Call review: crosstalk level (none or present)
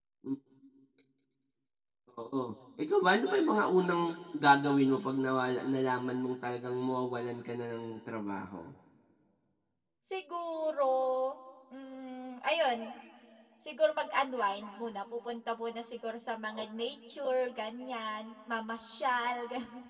none